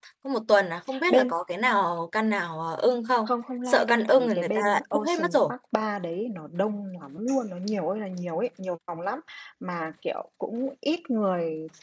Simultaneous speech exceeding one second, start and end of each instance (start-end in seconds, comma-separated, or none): 3.6-5.4